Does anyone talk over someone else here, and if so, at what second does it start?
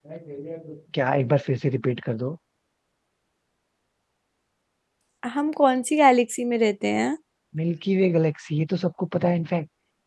none

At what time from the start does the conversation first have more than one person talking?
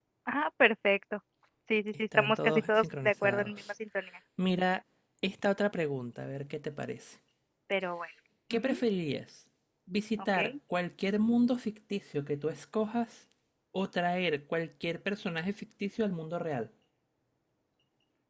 2.2 s

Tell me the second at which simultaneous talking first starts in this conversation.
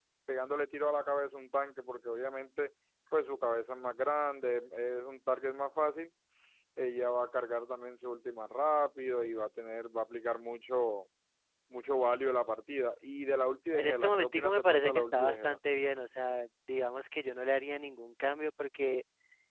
13.7 s

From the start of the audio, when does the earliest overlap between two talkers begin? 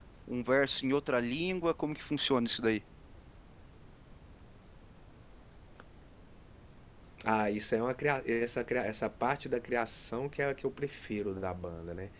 none

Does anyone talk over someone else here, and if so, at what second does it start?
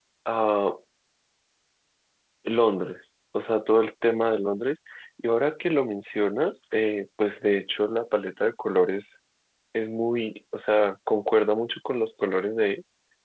none

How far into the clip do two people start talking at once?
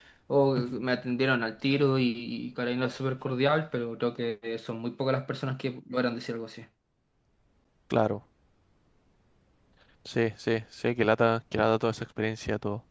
none

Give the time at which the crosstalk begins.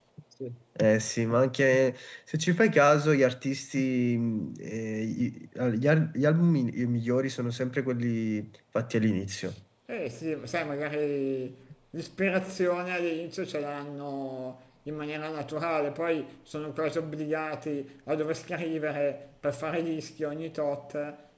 none

